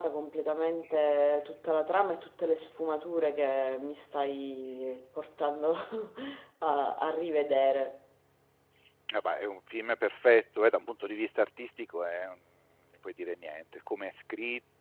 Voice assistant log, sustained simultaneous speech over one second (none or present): none